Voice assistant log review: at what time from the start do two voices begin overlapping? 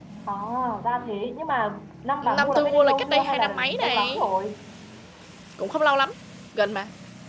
2.2 s

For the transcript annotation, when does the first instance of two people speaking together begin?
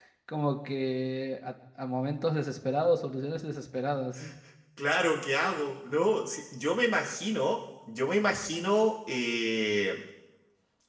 none

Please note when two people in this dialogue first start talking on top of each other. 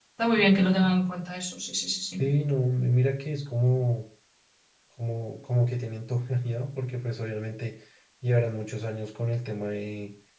none

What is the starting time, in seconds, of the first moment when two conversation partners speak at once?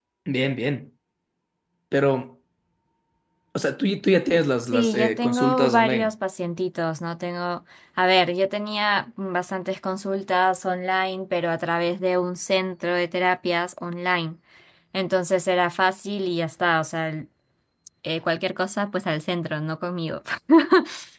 4.7 s

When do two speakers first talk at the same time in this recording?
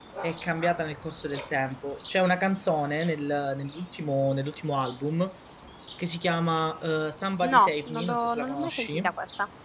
7.4 s

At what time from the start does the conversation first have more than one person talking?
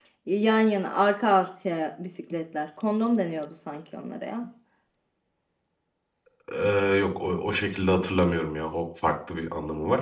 none

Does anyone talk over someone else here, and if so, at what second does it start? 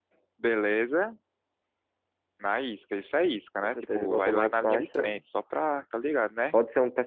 3.6 s

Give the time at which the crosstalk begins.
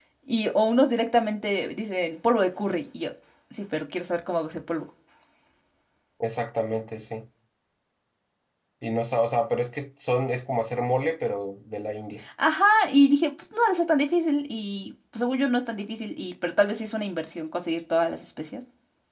none

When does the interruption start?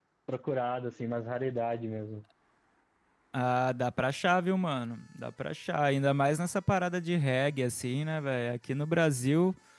none

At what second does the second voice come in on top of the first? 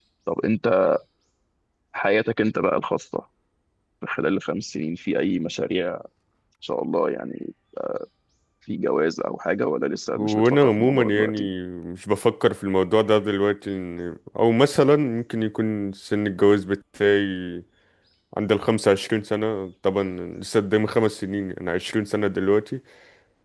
10.2 s

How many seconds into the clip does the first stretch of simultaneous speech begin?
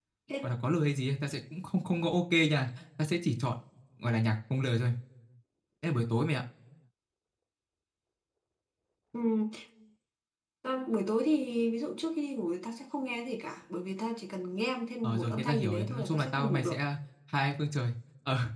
15.0 s

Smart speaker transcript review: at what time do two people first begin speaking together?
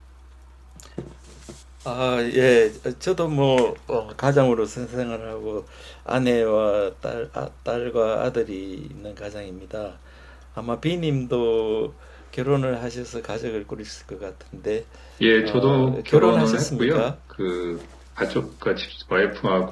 15.4 s

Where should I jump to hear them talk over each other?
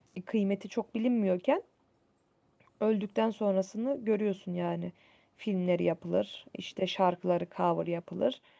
none

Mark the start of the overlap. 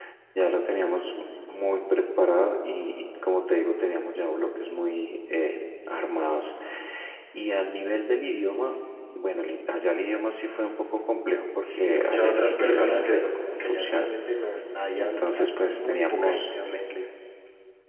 11.6 s

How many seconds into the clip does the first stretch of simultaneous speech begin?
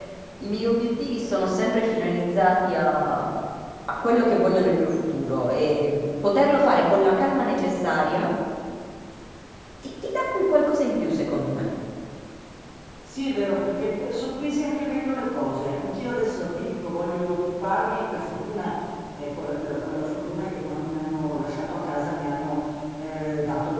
none

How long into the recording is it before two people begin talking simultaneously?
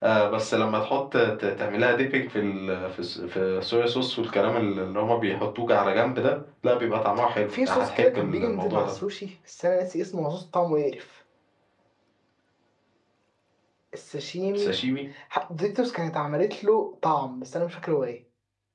7.7 s

